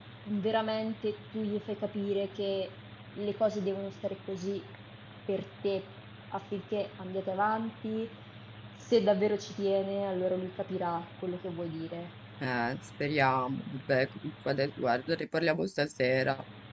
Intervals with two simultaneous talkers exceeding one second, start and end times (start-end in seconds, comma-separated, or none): none